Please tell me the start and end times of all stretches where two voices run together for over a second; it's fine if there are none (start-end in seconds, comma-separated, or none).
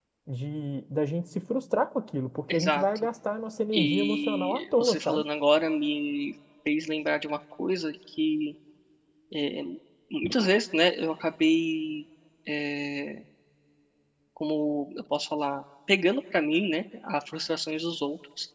3.7-5.2